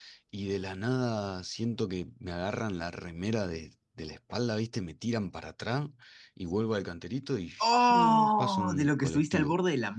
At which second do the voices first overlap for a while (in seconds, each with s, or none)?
7.6 s